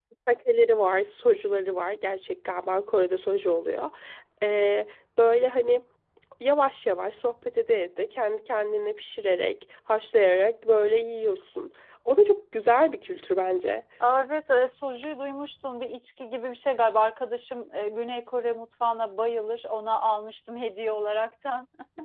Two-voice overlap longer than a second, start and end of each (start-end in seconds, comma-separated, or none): none